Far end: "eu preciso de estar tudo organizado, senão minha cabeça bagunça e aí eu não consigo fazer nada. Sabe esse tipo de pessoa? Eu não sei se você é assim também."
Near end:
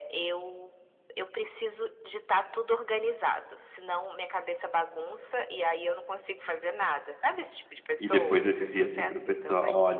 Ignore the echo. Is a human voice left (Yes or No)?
Yes